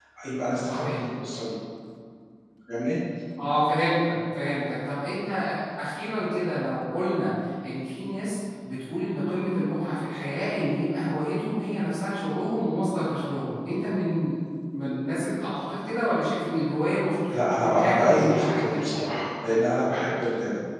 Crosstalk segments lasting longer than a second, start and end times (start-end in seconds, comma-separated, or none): 17.3-18.9